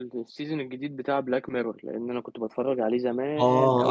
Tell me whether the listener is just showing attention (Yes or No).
No